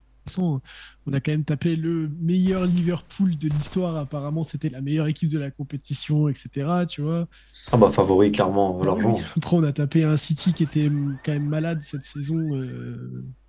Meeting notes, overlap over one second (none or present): none